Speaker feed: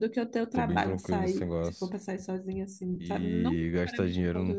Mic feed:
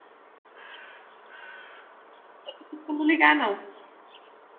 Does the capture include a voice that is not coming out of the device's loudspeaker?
Yes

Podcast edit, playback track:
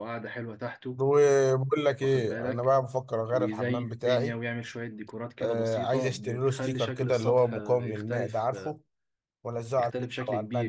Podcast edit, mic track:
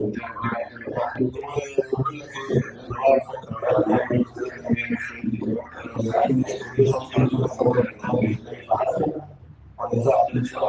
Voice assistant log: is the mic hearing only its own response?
Yes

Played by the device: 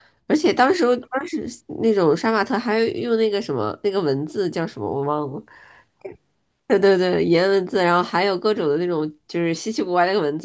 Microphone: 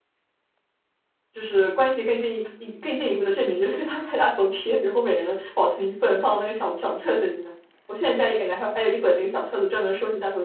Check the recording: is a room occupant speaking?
Yes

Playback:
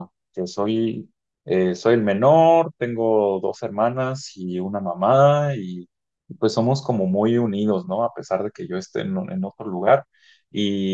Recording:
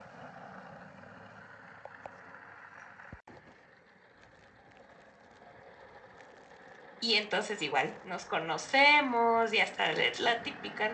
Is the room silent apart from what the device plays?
No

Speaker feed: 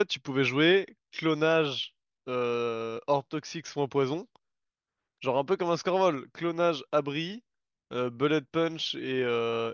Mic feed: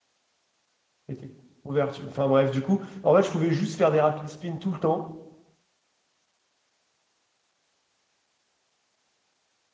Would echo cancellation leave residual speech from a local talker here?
Yes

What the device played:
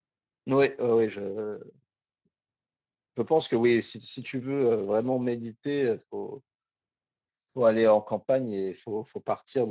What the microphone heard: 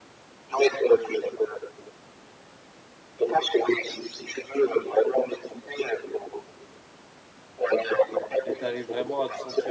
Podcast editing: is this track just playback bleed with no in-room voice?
No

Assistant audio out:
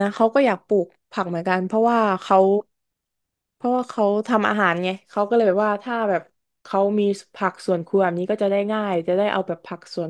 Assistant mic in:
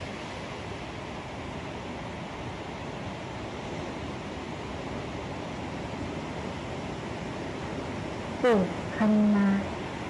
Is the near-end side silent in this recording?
No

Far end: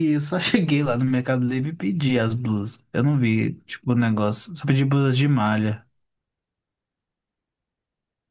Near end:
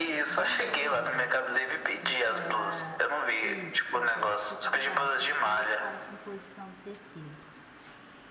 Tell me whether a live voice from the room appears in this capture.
Yes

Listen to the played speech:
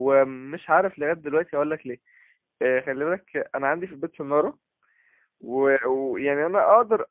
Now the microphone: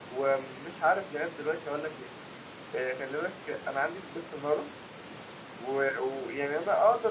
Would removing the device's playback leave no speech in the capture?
Yes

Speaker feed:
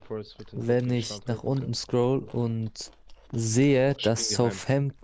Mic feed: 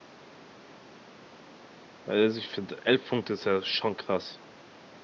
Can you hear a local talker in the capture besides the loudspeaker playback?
Yes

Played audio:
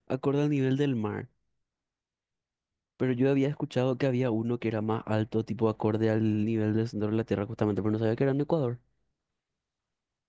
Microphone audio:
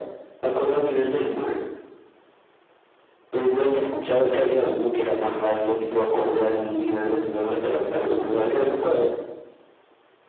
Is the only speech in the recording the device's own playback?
Yes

